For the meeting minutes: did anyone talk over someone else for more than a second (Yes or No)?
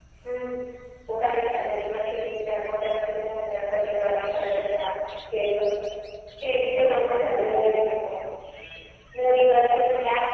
Yes